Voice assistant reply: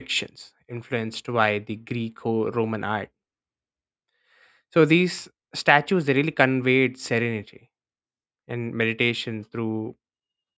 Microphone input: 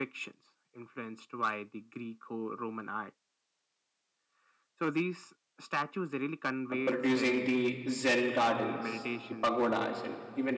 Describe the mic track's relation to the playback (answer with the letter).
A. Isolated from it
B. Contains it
B